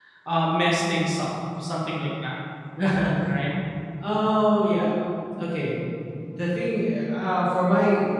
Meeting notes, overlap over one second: none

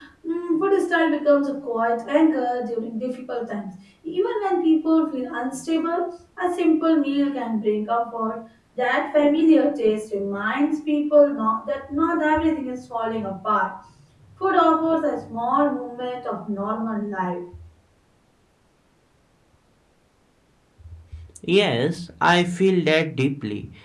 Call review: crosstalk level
none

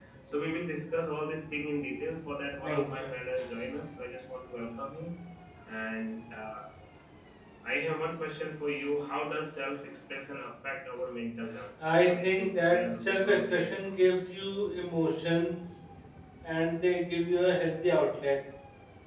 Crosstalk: present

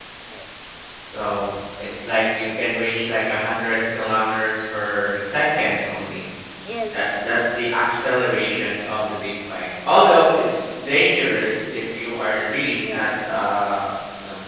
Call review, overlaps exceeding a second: none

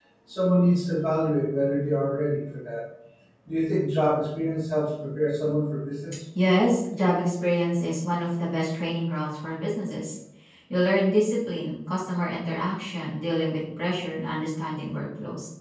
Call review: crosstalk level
none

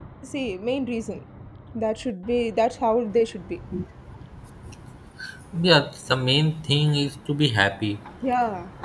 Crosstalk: none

